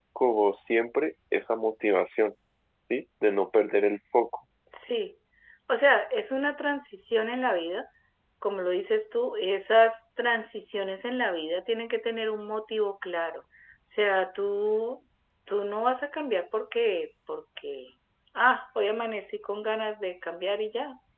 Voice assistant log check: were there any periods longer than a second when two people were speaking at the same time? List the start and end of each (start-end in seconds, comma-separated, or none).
none